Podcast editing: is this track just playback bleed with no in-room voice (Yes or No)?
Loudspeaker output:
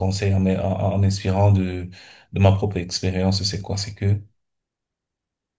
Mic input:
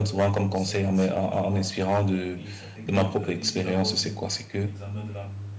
No